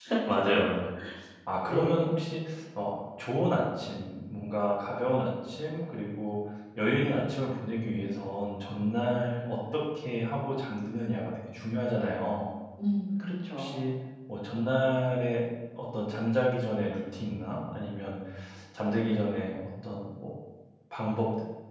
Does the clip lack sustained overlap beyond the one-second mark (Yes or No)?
Yes